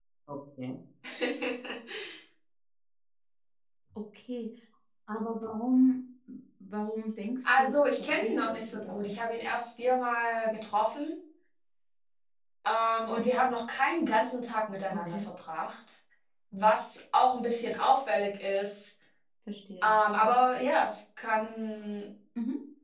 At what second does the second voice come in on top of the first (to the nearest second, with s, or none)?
7 s